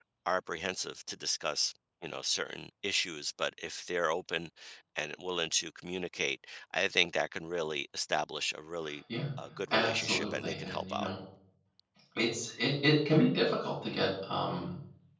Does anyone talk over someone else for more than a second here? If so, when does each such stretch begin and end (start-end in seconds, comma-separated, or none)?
9.7-11.1